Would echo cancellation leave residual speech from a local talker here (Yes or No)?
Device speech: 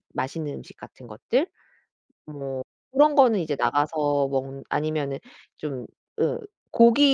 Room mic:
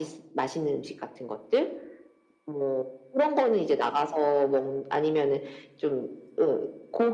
No